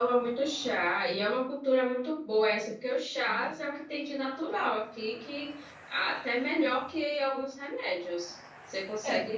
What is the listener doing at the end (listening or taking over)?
listening